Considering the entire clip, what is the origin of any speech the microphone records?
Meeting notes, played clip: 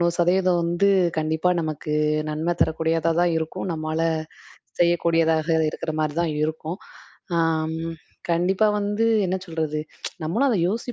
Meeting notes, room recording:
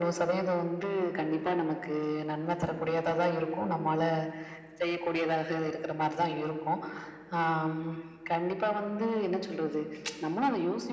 echo only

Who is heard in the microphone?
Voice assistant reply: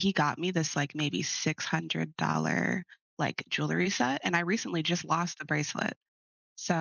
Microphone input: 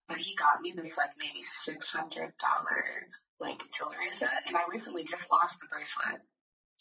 echo only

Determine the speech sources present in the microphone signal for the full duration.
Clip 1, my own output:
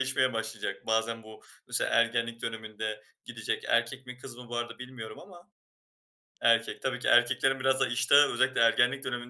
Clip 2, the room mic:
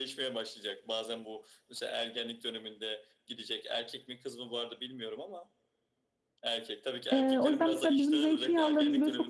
both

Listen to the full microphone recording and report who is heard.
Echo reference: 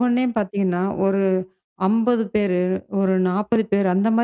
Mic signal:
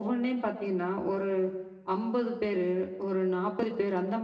echo only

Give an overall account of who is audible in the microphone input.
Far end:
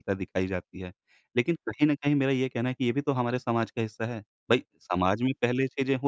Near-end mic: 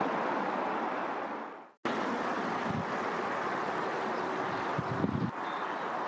neither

